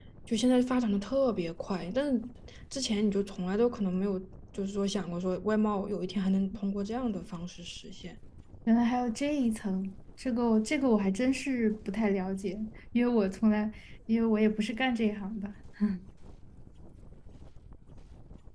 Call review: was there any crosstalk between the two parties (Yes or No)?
No